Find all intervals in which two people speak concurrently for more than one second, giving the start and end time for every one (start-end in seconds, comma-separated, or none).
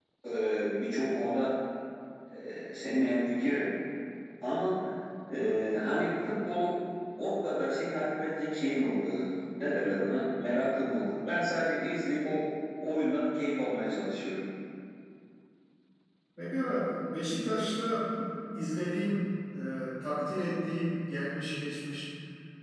none